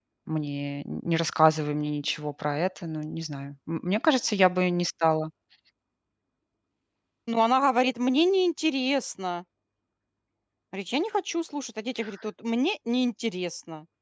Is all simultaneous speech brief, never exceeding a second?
Yes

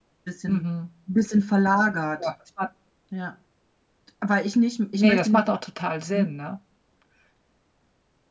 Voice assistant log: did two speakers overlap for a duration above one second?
No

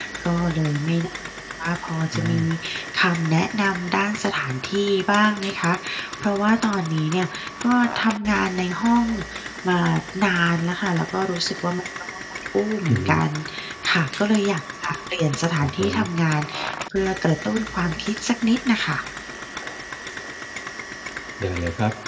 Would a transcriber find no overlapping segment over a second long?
Yes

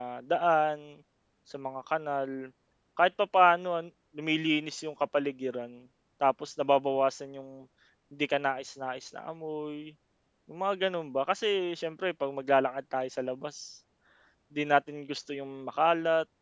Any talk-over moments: No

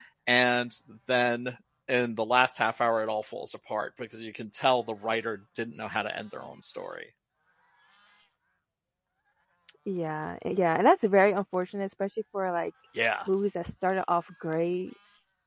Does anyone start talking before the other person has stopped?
No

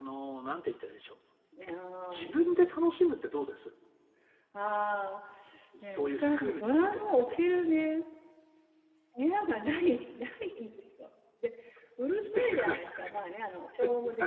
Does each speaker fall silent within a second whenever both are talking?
No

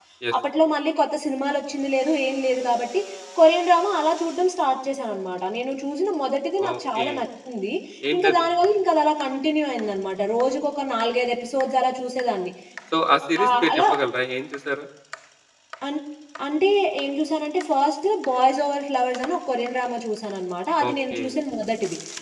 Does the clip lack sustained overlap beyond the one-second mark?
Yes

